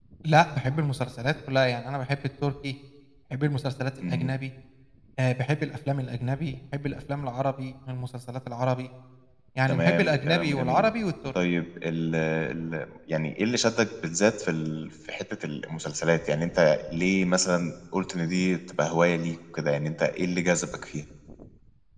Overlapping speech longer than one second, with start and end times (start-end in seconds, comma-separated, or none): 9.7-10.9